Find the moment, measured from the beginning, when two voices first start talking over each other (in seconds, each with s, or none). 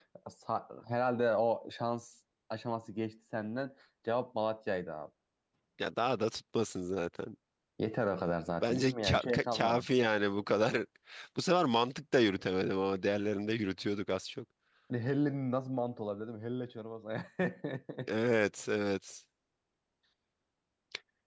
8.6 s